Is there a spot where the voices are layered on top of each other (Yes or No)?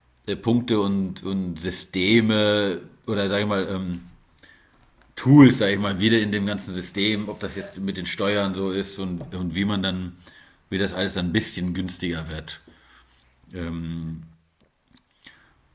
No